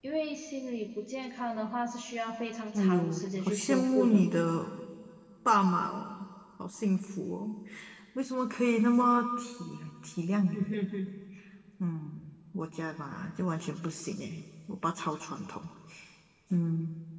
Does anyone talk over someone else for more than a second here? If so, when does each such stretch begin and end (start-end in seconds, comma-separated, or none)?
2.7-4.2